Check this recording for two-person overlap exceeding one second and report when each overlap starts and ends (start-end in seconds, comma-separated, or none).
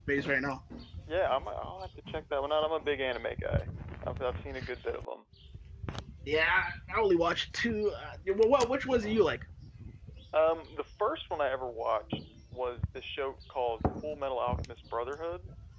none